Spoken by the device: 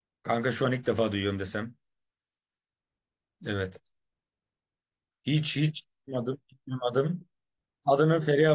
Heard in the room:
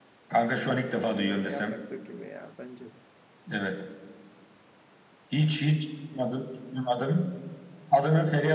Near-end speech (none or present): present